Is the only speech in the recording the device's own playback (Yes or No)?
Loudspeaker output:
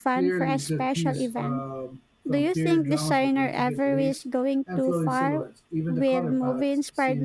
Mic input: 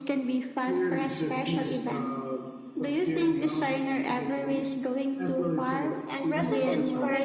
No